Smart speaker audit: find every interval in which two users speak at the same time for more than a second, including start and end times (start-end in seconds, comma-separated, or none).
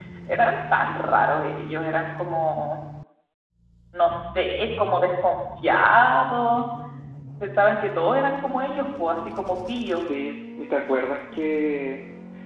none